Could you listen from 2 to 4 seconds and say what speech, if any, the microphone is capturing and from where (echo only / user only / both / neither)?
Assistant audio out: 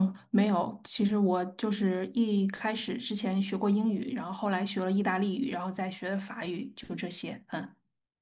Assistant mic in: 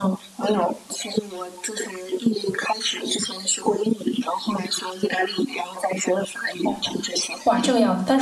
echo only